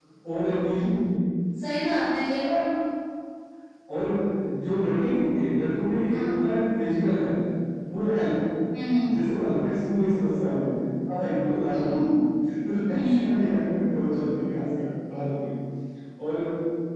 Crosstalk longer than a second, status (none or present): none